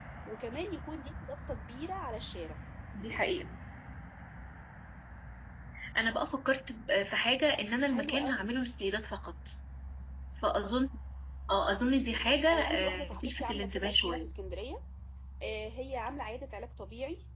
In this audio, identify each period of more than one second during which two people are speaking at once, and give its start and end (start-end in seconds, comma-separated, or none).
12.5-14.3